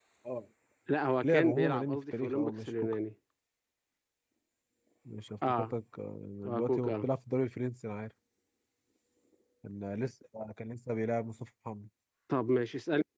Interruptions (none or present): present